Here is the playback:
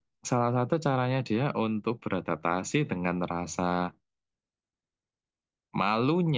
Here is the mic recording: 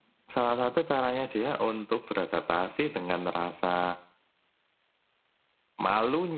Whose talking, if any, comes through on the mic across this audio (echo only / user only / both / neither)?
echo only